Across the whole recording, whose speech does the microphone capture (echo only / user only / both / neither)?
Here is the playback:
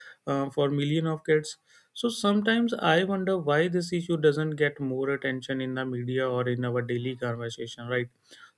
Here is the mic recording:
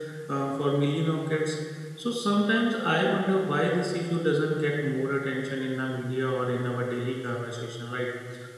echo only